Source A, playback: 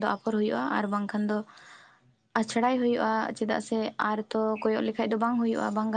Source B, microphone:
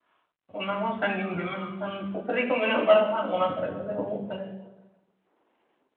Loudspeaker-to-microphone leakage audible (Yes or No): No